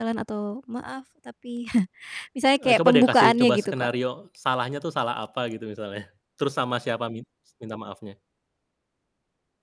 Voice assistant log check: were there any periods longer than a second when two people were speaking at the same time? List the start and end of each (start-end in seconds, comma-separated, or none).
2.6-3.9